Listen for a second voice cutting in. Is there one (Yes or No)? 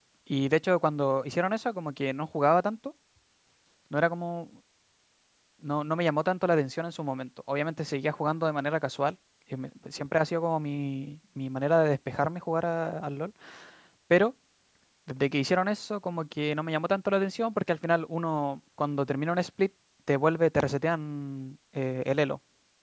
No